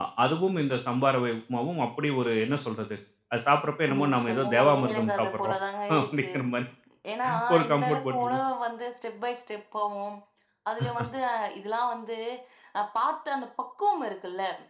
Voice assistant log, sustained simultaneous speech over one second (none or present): present